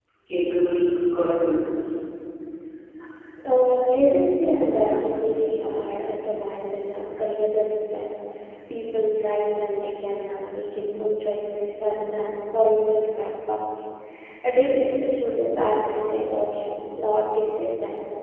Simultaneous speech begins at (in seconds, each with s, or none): none